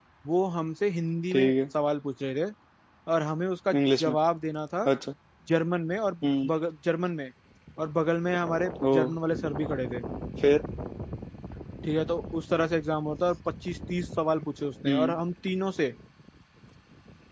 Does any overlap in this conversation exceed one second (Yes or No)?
No